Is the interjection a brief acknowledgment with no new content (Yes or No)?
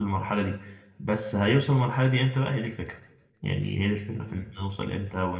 Yes